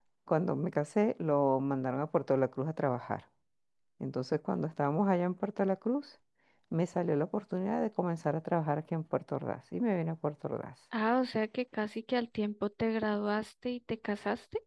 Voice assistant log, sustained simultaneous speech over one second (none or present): none